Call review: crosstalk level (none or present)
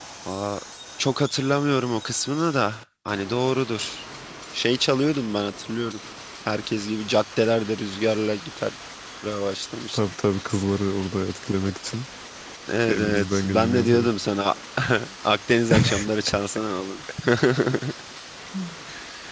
present